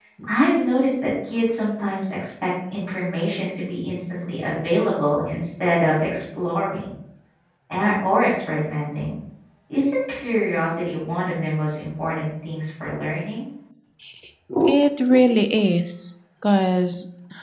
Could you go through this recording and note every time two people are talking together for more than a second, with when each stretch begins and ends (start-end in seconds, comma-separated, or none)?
none